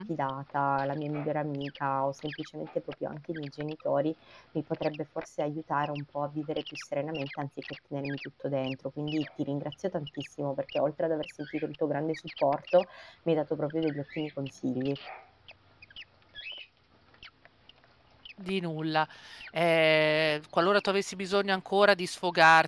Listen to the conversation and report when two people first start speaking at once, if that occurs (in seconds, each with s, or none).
none